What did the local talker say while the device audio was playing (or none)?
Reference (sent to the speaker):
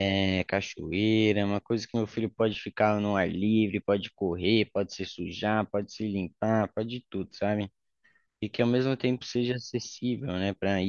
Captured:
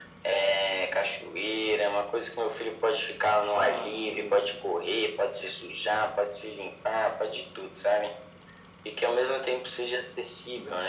Ah, sim.